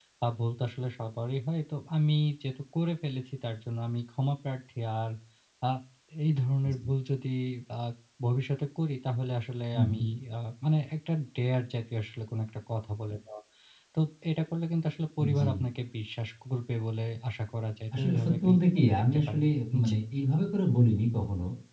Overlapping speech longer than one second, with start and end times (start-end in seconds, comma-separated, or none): 18.0-19.4